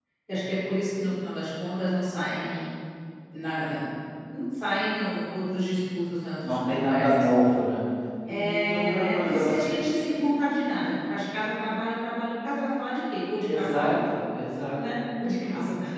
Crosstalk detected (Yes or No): Yes